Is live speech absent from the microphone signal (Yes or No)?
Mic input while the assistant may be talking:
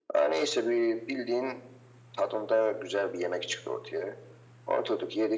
Yes